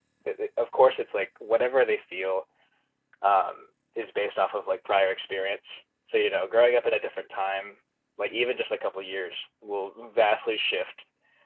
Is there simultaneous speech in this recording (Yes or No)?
No